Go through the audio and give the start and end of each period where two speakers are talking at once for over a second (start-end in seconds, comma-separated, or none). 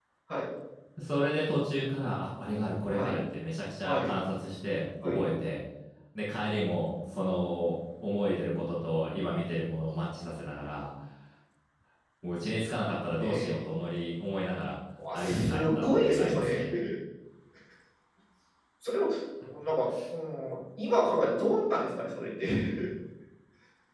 15.2-16.6